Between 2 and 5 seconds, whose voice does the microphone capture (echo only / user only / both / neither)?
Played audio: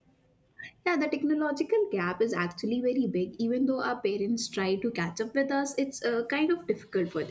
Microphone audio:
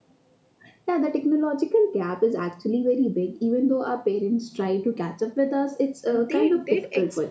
echo only